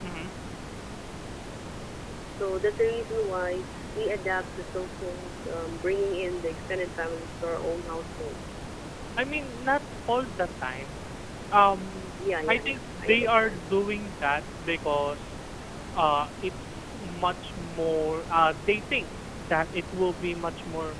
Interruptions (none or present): present